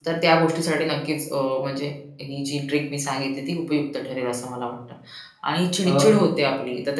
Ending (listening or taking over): listening